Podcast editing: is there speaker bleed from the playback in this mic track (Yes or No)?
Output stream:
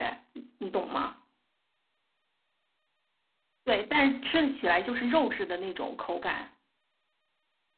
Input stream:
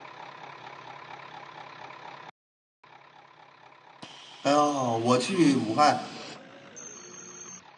No